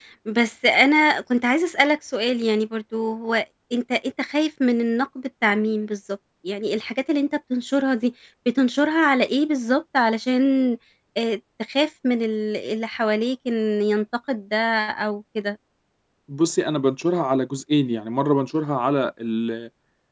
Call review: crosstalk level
none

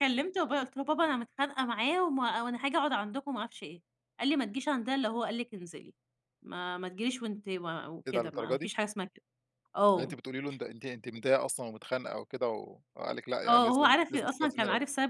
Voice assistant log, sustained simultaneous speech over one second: present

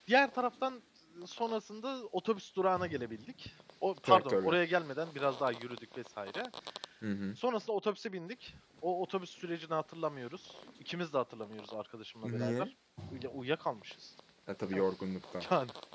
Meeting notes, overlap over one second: none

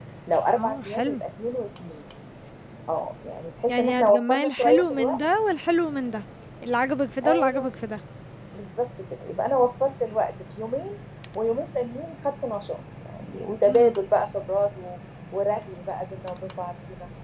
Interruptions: present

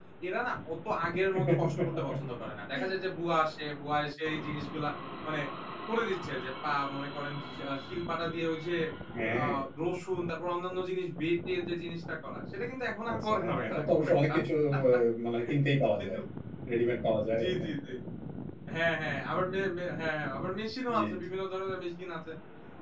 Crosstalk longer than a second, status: present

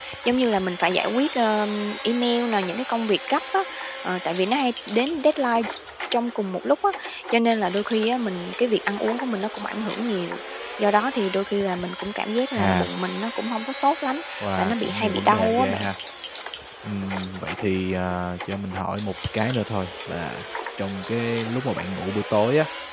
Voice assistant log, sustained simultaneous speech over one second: present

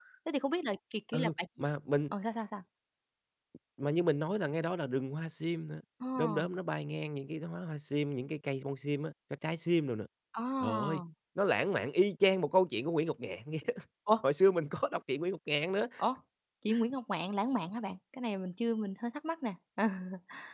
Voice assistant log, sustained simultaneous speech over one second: none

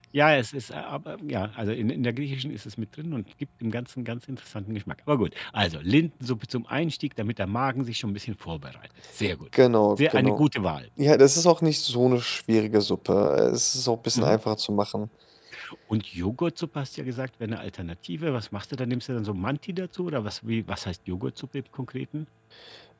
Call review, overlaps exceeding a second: none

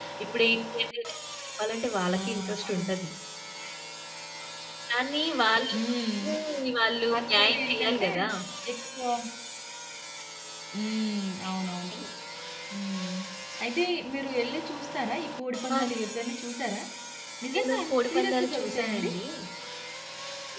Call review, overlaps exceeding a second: present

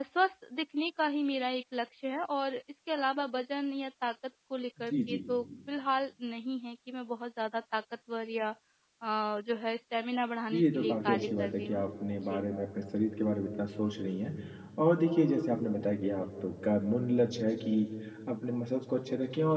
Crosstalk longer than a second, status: present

